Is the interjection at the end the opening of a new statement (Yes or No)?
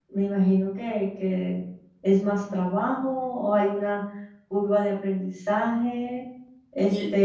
No